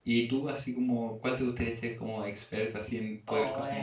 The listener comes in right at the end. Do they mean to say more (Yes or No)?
Yes